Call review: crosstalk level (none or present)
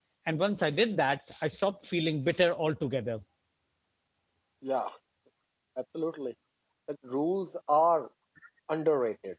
none